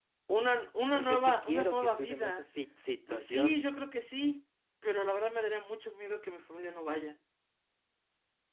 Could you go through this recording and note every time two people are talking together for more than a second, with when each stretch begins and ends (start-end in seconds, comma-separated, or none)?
0.9-2.5